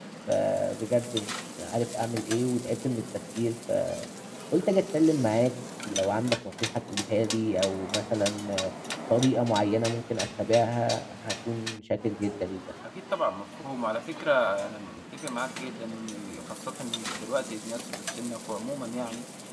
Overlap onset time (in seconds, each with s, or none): none